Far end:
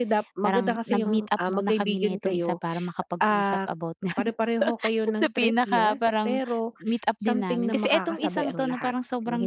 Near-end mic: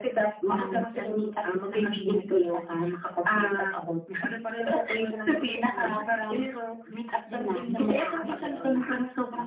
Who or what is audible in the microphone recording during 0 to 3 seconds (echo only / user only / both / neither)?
echo only